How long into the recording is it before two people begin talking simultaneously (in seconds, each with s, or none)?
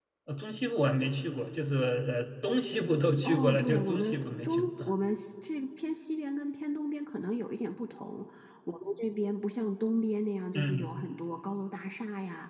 3.2 s